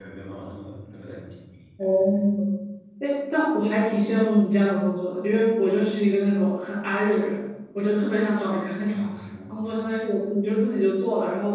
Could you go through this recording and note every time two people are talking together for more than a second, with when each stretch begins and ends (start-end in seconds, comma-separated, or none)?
none